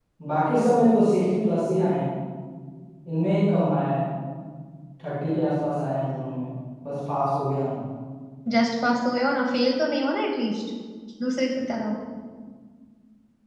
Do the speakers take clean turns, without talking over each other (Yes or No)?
Yes